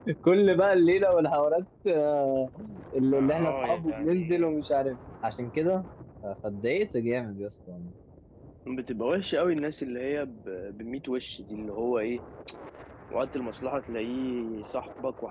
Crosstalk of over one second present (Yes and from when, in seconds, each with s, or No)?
Yes, from 3.1 s